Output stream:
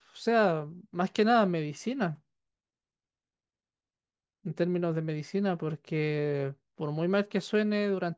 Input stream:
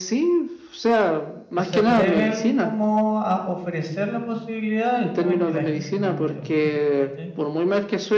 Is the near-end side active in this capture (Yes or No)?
Yes